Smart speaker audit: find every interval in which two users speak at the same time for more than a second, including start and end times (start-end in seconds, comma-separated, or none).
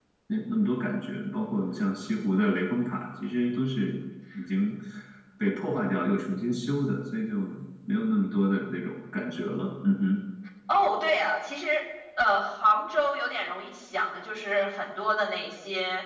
none